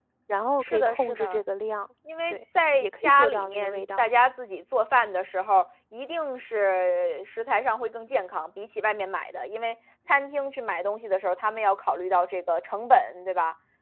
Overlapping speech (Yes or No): Yes